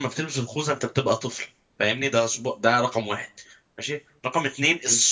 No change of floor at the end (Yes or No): Yes